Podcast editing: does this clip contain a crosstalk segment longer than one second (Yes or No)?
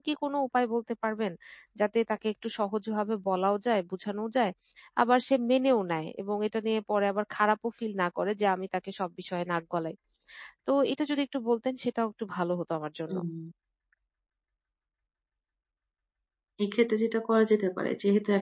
No